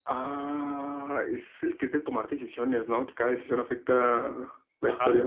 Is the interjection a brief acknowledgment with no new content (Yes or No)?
No